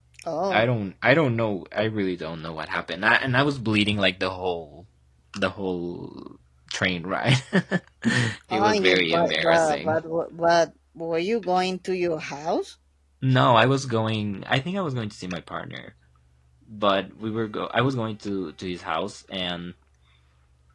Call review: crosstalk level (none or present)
present